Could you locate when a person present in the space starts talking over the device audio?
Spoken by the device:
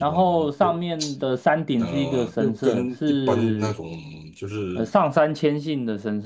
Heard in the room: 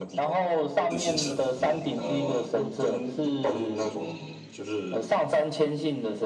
0.9 s

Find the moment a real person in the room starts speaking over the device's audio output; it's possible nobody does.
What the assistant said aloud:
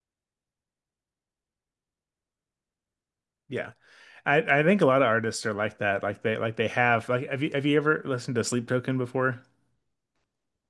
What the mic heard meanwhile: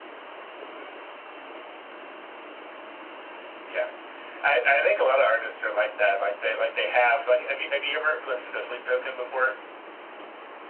none

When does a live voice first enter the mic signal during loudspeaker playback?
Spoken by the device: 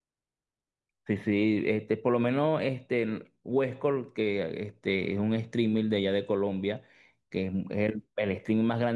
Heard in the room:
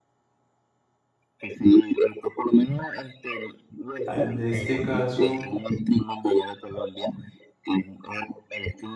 4.0 s

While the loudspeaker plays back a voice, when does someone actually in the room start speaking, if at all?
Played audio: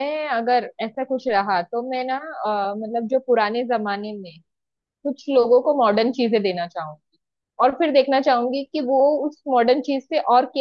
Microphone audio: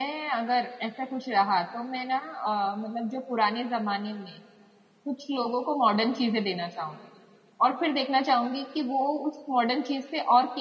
none

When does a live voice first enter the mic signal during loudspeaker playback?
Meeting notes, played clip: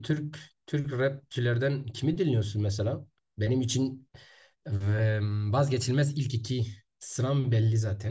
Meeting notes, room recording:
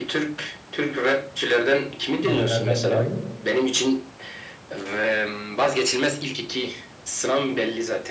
2.2 s

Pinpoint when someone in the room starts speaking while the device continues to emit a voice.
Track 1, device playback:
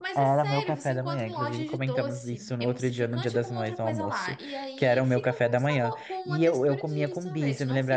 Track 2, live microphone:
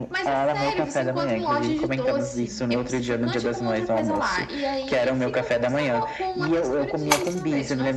none

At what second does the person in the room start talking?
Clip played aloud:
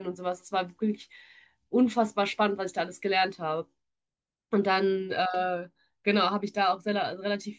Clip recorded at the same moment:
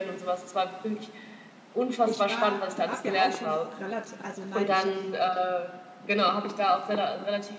2.0 s

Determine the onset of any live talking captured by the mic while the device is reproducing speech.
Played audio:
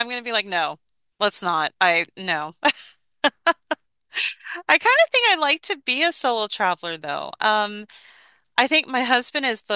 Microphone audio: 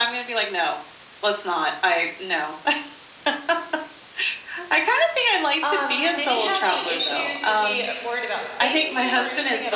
5.6 s

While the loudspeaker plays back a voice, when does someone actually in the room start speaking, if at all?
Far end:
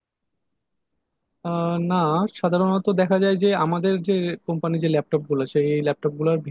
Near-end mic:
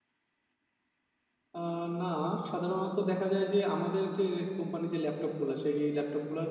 none

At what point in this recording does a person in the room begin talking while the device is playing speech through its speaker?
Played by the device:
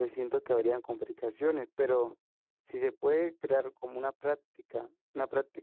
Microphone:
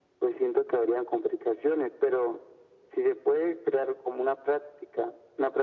none

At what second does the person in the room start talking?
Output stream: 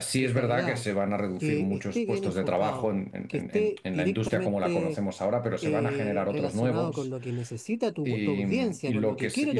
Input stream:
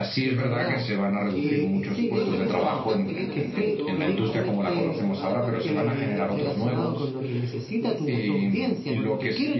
1.3 s

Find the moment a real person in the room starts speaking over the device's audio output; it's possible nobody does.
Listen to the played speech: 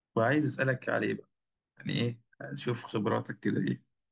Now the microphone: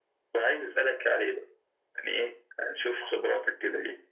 none

